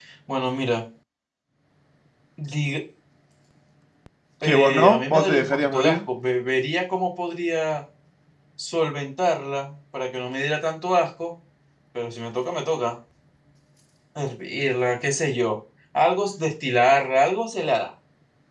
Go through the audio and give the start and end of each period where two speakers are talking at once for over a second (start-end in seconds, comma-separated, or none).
4.4-6.0